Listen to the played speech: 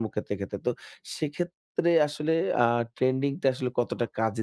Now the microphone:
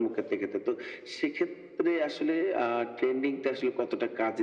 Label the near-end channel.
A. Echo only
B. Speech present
A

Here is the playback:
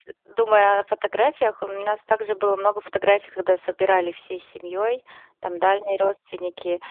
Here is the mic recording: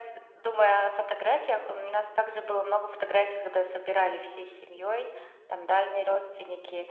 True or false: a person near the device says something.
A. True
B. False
B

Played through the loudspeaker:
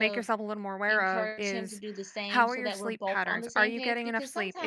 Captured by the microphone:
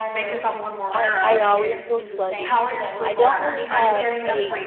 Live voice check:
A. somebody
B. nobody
A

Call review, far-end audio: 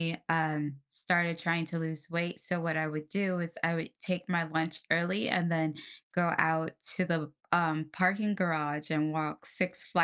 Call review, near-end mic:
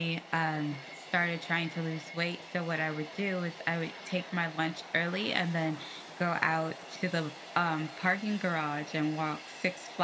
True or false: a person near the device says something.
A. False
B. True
A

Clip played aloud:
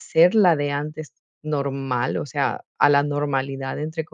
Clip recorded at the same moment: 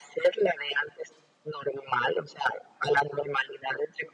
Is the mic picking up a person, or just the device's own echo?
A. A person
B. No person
B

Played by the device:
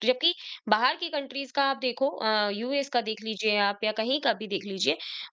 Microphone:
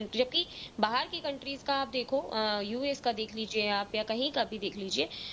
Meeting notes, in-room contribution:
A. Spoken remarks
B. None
B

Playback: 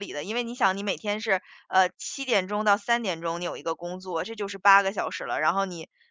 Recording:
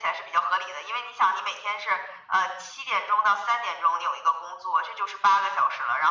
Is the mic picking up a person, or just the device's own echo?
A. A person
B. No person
B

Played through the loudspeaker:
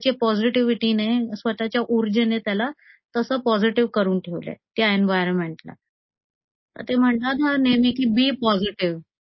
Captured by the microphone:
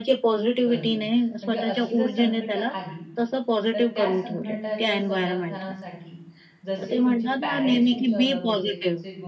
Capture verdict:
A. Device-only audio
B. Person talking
B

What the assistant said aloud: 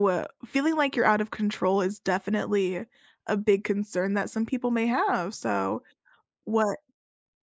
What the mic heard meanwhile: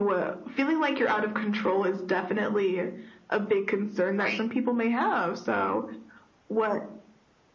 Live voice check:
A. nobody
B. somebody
B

